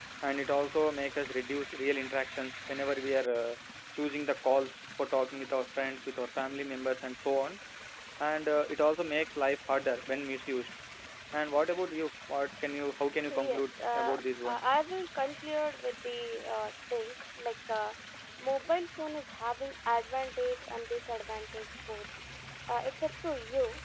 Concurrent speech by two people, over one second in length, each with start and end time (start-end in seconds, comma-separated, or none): 13.3-14.6